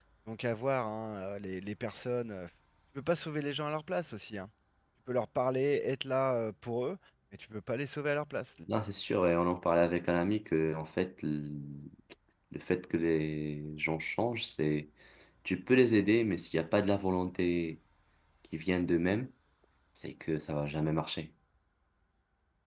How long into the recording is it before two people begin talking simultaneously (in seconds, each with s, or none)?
none